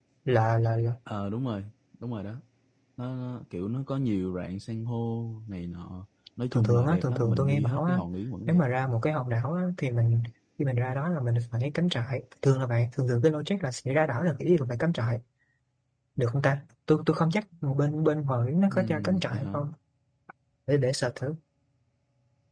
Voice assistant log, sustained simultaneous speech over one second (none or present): present